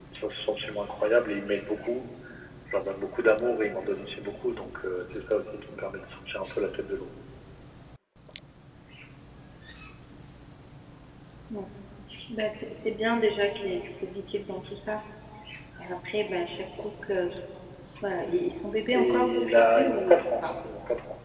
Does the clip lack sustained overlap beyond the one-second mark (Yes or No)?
No